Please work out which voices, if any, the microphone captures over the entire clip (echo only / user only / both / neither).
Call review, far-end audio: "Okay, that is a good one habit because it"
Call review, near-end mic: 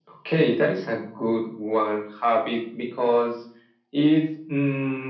echo only